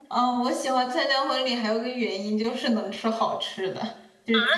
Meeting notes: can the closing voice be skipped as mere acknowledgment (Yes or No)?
No